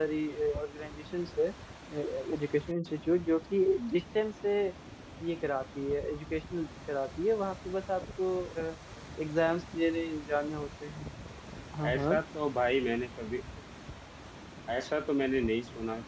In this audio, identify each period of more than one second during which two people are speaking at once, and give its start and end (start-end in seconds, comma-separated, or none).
none